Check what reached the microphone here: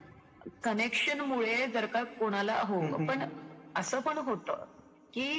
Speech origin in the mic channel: both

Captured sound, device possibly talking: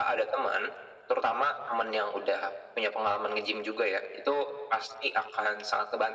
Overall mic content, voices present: echo only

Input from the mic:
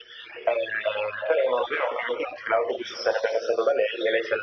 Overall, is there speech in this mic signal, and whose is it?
echo only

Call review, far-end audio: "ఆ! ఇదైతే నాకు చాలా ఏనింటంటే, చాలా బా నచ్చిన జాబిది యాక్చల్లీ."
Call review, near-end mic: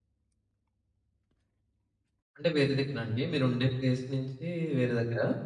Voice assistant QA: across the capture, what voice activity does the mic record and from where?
user only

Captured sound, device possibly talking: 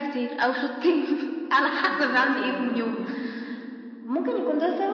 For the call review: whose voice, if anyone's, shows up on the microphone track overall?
both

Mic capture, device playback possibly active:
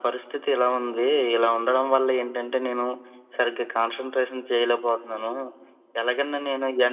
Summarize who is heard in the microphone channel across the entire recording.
echo only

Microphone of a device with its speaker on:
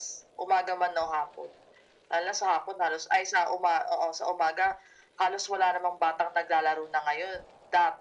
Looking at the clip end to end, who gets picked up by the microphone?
echo only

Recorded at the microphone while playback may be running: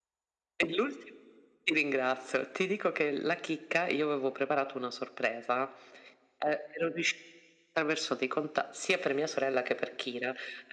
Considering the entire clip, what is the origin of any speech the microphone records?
echo only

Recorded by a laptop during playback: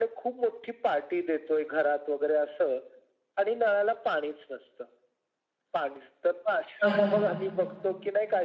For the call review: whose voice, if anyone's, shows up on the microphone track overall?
both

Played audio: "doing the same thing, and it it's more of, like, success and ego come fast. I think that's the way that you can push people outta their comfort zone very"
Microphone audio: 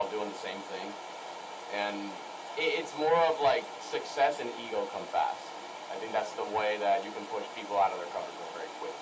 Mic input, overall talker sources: echo only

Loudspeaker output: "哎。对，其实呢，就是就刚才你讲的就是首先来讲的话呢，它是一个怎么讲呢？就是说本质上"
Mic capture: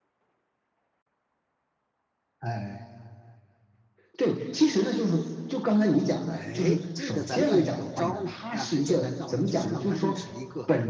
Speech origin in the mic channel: both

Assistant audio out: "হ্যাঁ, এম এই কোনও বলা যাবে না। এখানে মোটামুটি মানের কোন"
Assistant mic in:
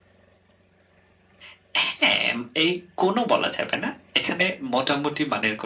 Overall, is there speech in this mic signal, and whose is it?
echo only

